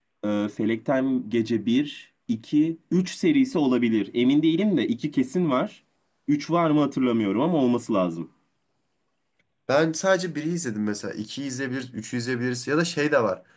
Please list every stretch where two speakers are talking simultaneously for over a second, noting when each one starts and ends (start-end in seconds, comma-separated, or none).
none